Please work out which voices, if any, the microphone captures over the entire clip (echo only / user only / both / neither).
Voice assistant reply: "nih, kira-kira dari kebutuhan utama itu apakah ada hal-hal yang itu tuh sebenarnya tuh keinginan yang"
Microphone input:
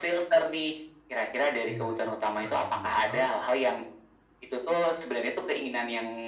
both